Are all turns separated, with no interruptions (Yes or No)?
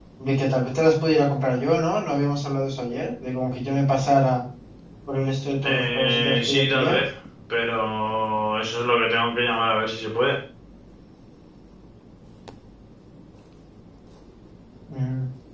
No